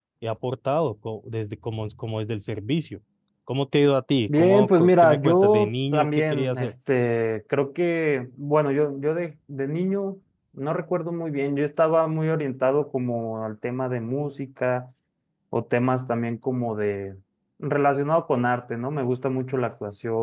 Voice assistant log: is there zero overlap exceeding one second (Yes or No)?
No